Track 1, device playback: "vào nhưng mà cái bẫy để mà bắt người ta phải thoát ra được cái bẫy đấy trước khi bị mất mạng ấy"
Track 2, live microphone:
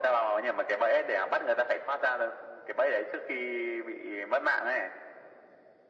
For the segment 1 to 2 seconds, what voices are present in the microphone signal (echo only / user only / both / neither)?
echo only